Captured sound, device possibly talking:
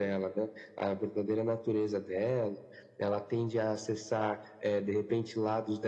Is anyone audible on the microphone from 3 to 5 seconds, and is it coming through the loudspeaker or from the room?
echo only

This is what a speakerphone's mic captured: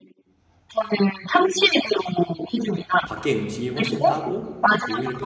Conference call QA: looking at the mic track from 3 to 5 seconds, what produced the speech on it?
both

